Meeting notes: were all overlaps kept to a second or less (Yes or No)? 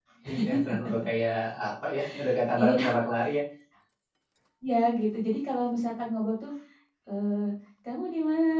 Yes